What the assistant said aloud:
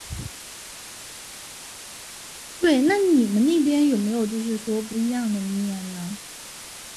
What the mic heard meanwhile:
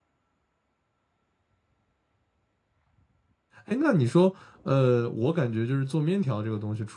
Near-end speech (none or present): present